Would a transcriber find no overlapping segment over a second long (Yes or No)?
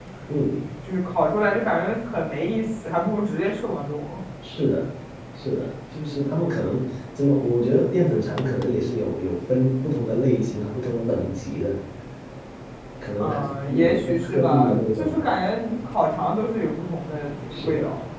No